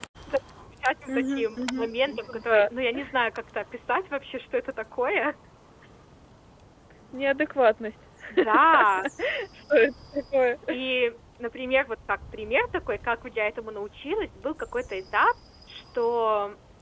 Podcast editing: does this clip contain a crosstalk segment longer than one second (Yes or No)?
Yes